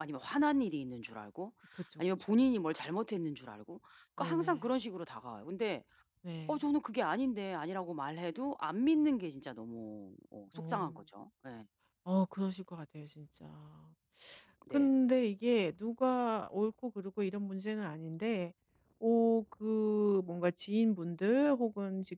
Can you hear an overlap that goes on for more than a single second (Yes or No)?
No